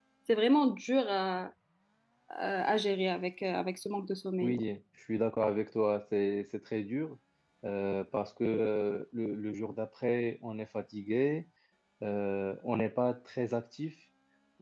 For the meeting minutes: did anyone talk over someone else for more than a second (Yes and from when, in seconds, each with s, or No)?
No